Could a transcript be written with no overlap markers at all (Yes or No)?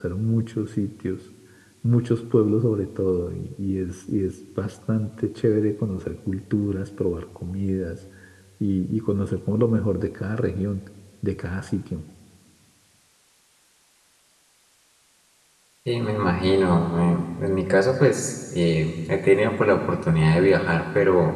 Yes